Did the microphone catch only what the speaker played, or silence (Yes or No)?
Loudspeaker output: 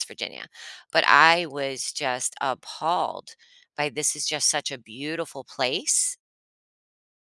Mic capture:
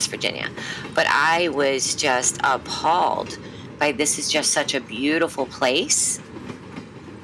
Yes